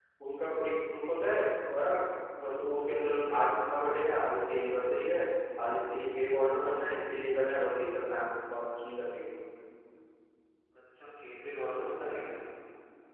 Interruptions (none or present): none